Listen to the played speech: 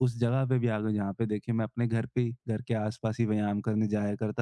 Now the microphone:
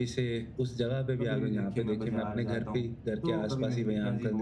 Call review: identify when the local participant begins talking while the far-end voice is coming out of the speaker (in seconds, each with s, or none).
1.2 s